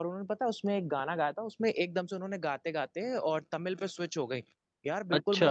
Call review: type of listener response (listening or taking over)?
listening